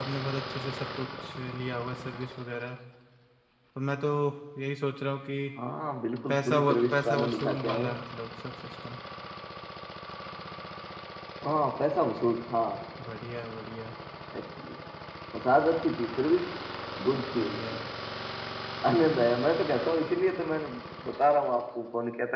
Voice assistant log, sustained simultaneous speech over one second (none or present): present